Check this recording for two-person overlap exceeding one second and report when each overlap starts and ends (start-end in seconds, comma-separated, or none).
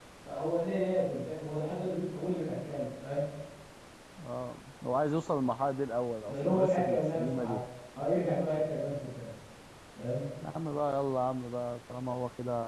6.3-7.6